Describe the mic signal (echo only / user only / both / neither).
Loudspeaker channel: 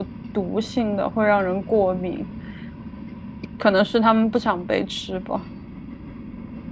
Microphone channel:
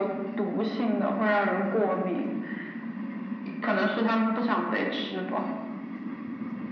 echo only